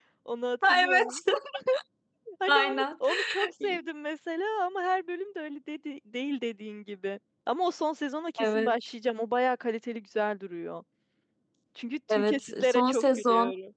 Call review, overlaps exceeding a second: present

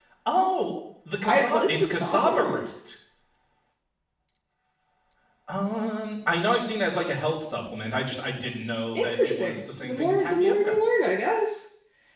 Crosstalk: present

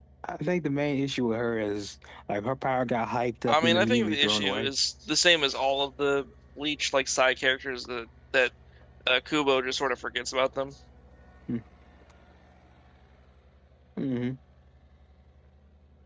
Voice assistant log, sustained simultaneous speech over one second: present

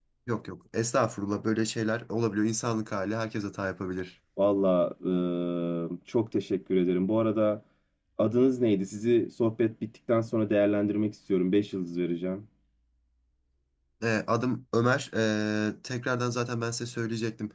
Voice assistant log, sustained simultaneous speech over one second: none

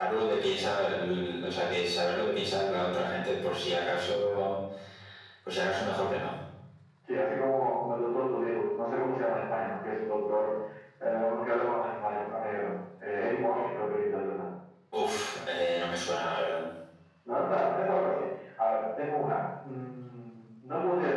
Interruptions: none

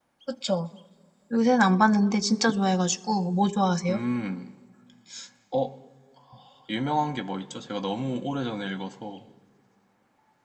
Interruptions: none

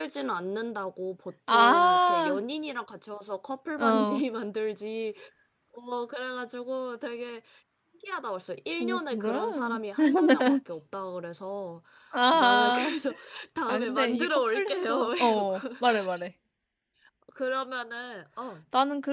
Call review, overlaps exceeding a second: present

